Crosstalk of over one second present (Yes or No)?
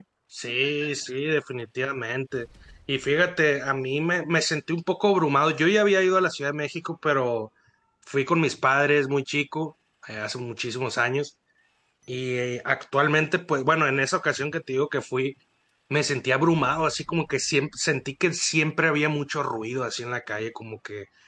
No